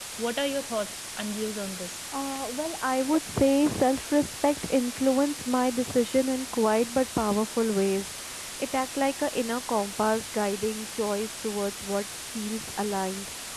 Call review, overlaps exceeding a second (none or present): none